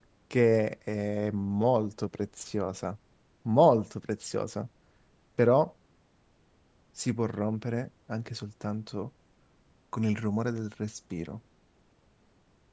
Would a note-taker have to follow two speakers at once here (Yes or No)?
No